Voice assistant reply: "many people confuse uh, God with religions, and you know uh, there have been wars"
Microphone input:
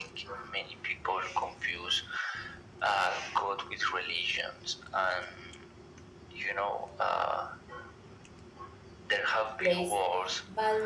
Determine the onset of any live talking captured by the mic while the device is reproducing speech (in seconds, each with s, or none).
9.6 s